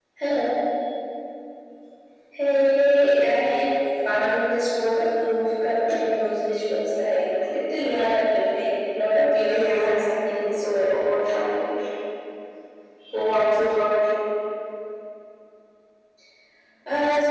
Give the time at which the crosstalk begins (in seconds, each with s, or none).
9.5 s